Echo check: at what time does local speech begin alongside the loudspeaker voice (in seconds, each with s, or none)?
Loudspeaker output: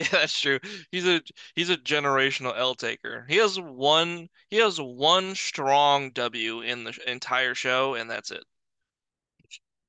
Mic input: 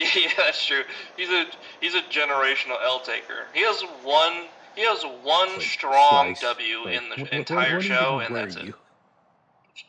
5.4 s